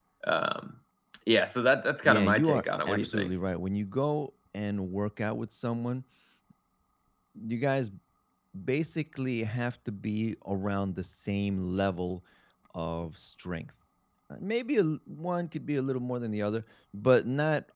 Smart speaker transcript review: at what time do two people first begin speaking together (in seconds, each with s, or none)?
2.0 s